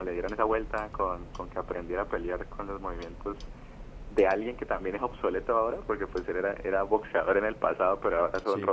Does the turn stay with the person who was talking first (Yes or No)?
Yes